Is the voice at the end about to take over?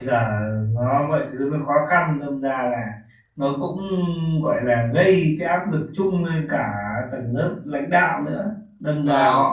No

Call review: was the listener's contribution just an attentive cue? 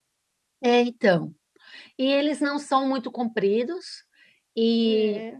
Yes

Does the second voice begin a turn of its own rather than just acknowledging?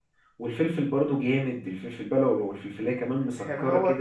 Yes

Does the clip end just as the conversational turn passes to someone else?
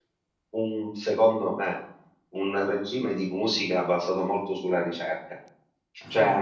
No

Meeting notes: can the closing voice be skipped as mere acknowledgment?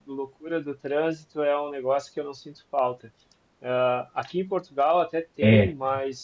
Yes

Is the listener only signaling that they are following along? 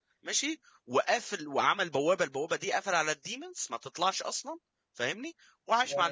Yes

